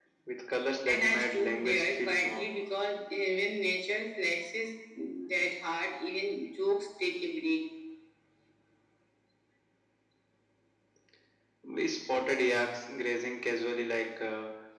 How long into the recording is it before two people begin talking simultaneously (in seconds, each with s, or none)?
0.9 s